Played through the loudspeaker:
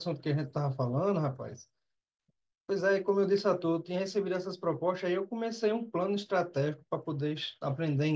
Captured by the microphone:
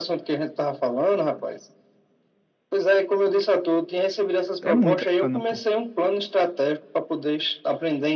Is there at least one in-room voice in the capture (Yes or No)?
Yes